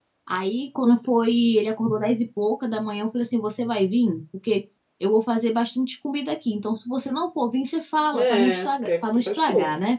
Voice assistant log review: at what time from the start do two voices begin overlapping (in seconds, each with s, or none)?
8.1 s